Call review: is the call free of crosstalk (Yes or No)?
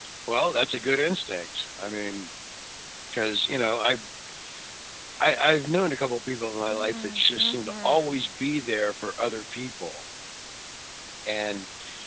No